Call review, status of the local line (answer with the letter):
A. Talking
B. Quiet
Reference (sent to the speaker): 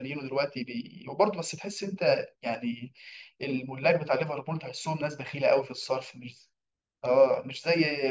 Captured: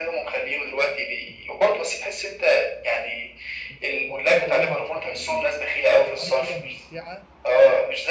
A